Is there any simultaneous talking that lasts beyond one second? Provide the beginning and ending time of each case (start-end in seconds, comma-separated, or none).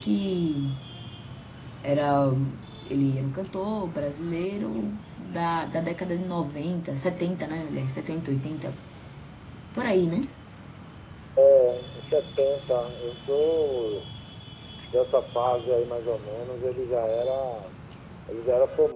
none